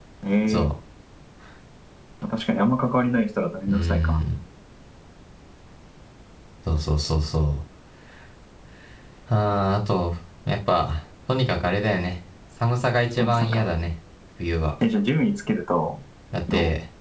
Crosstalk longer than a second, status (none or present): none